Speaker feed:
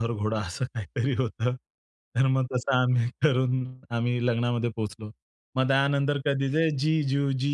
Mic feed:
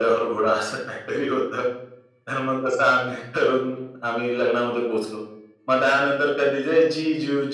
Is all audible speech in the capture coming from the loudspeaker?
Yes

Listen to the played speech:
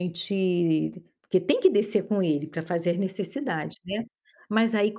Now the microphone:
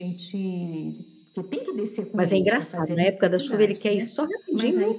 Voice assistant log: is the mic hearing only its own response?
No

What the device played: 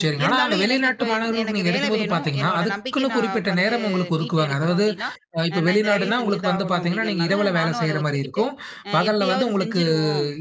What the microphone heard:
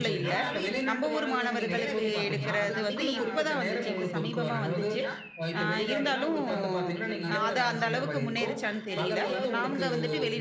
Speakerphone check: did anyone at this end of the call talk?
Yes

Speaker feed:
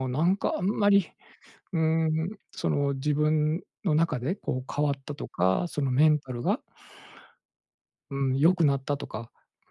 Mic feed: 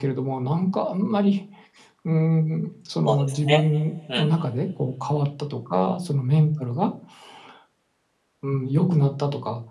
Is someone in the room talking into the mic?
Yes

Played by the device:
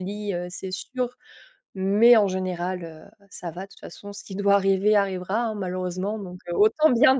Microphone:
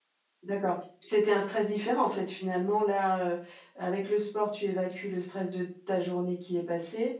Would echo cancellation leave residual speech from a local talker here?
Yes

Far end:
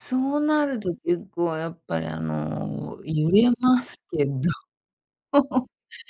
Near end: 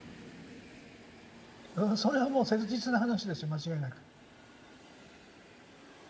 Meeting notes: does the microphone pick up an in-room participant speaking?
Yes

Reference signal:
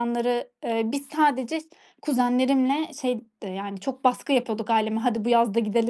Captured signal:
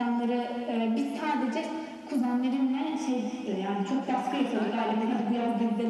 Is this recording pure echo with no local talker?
No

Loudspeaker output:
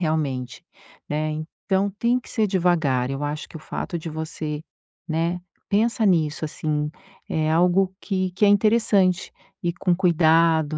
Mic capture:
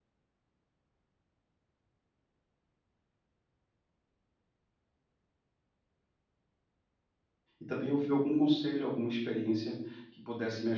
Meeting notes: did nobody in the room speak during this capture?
No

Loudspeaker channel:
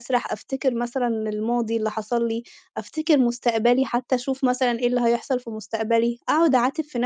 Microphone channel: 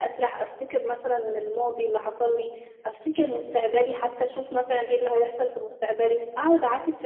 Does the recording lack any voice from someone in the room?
Yes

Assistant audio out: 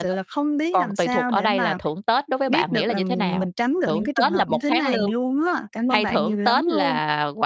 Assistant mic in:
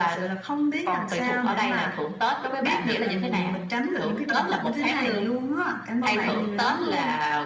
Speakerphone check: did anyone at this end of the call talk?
Yes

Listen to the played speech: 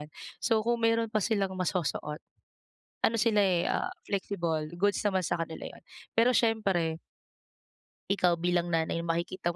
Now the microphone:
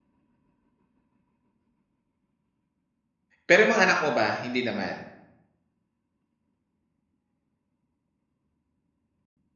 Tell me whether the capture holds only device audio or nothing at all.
No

